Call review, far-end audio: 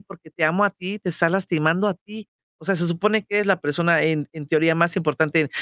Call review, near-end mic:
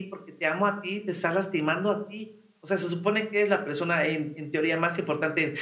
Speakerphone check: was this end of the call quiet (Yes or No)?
Yes